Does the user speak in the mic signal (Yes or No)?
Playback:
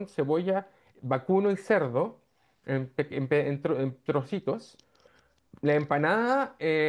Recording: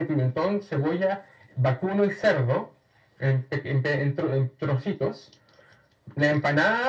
No